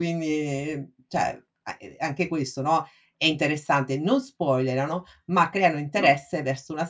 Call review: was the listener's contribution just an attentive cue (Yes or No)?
Yes